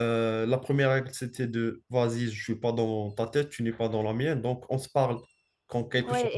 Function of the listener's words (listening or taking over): taking over